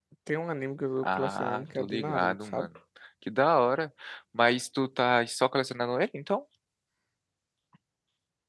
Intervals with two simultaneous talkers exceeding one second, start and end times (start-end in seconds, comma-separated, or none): 1.0-2.7